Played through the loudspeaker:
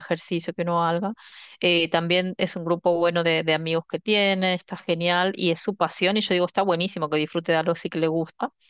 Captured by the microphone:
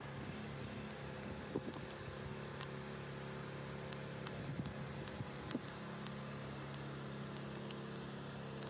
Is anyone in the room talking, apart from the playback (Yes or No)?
No